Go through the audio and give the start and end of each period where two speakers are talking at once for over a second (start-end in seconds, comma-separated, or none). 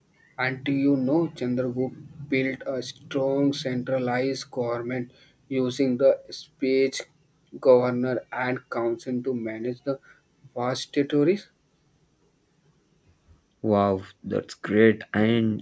none